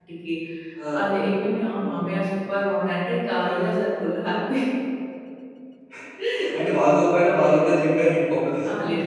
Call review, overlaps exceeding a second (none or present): none